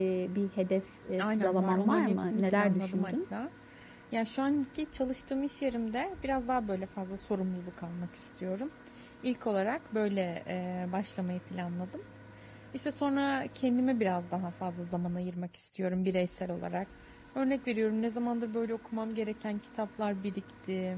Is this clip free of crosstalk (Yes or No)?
No